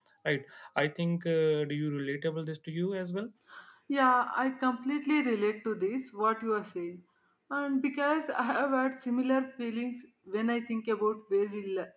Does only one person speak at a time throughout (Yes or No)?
Yes